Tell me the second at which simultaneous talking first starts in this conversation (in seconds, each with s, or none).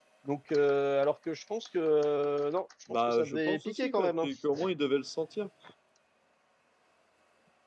2.9 s